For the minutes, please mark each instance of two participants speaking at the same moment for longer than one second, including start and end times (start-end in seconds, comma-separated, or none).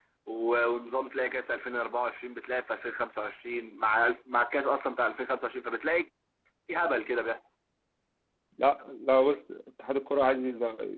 none